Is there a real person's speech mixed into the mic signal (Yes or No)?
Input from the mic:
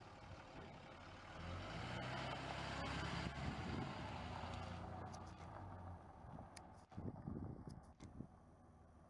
No